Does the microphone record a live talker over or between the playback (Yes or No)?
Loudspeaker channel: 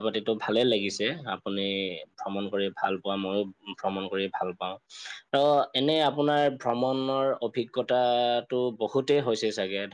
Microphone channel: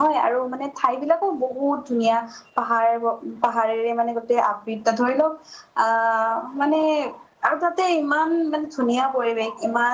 Yes